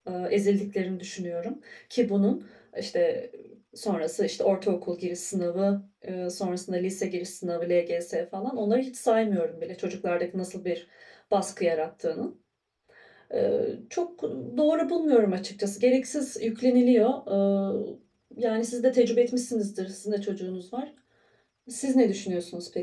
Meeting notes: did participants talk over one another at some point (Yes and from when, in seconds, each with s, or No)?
No